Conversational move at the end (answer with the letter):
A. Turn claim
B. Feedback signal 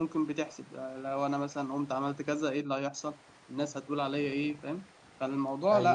A